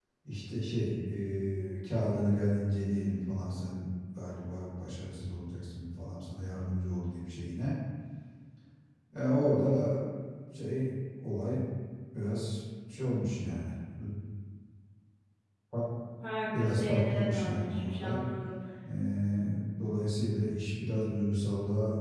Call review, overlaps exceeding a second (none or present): present